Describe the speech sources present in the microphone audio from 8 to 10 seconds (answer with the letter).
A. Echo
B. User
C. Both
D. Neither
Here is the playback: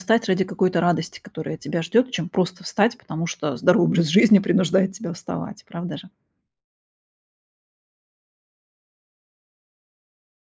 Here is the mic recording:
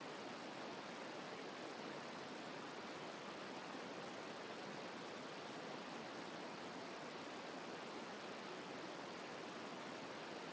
D